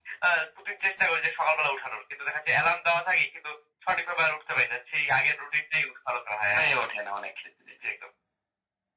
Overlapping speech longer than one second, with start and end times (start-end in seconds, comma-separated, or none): none